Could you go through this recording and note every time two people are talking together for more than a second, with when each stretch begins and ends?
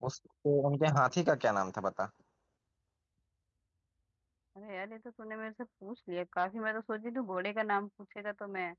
none

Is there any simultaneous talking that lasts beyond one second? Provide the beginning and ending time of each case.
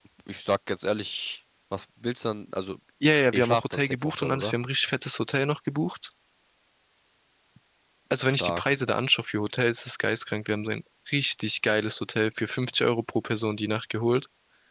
3.1-4.5

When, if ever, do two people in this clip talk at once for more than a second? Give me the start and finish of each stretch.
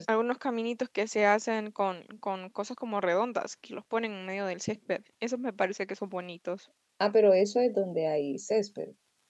none

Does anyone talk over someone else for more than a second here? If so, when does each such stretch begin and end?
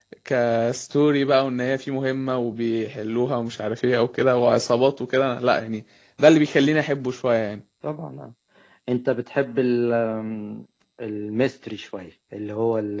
none

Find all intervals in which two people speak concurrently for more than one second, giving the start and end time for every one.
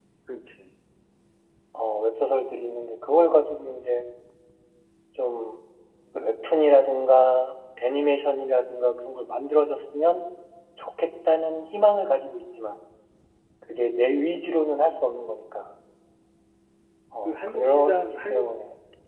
17.2-18.5

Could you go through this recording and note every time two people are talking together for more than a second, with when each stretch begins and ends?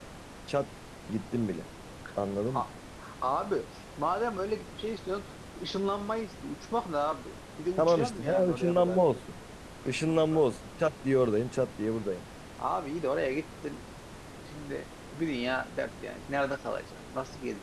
7.8-9.0

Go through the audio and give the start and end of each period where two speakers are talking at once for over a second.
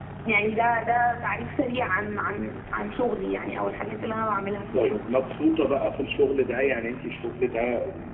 none

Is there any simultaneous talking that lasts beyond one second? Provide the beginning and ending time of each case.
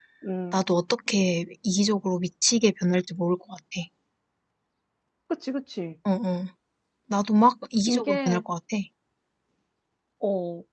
none

